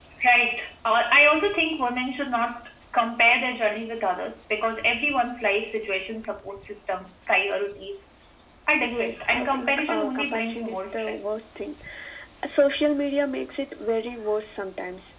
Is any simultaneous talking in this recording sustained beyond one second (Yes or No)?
Yes